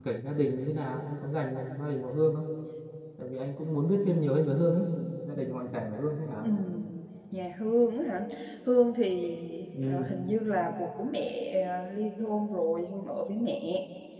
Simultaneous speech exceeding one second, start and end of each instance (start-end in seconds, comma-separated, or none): none